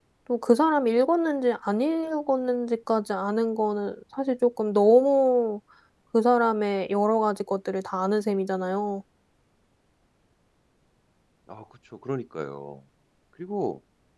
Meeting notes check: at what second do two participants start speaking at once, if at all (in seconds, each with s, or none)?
none